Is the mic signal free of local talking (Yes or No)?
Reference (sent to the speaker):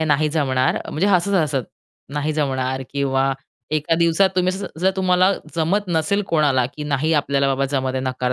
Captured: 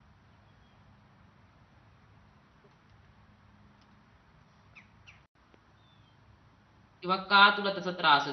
No